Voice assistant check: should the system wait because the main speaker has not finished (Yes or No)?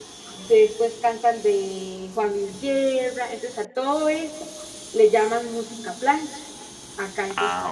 Yes